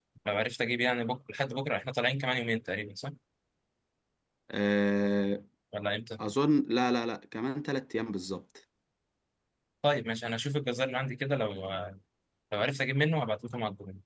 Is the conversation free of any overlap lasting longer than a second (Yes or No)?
Yes